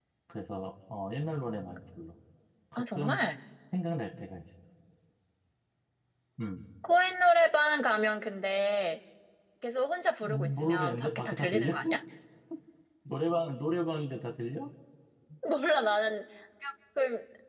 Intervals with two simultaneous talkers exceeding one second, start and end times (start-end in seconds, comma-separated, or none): 10.2-11.7